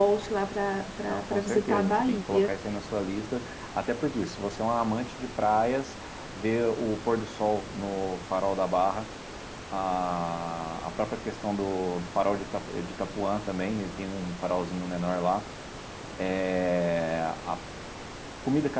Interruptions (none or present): present